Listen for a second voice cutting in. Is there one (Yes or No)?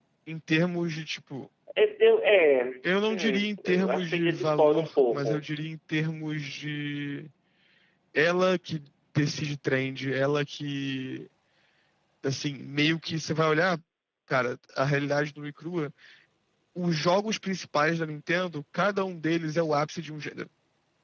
Yes